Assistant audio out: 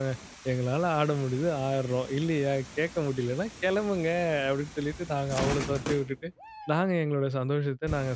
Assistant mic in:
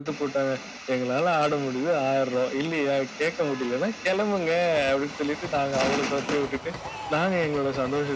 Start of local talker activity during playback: none

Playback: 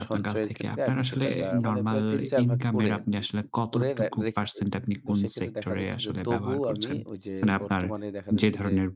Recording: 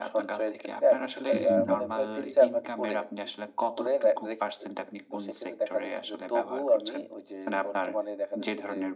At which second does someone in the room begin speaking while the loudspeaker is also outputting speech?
1.4 s

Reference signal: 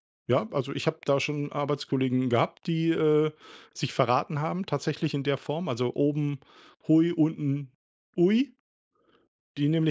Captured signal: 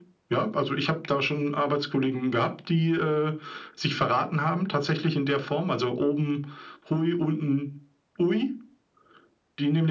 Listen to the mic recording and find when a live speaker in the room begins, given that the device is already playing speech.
none

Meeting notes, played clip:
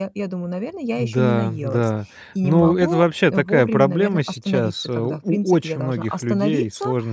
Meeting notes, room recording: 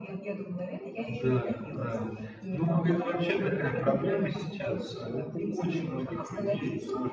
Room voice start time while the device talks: none

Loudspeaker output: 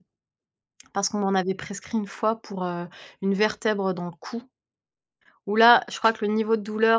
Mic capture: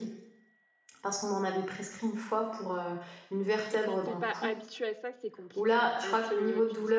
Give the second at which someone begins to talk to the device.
3.7 s

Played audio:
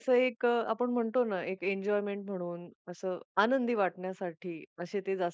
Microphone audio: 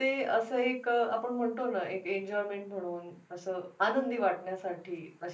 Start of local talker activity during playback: none

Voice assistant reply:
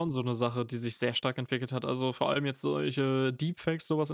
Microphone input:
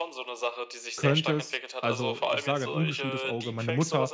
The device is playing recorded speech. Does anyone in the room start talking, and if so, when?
1.0 s

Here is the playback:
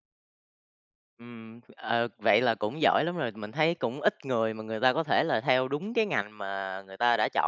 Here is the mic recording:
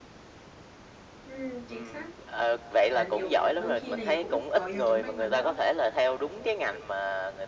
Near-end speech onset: 1.2 s

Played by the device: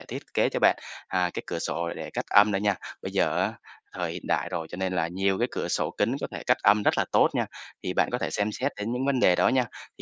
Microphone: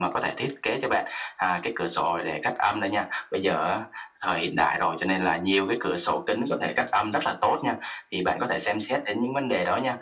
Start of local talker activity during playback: none

